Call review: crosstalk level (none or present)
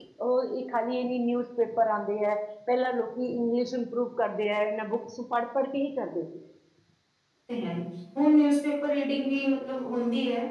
none